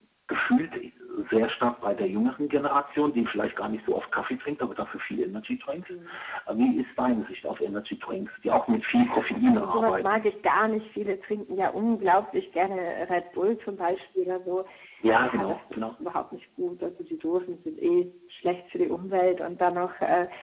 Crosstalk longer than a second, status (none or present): present